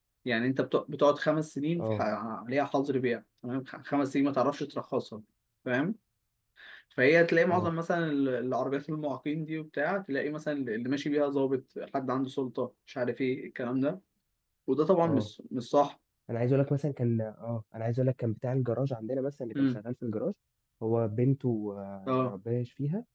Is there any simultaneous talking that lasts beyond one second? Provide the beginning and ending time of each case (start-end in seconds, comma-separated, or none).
none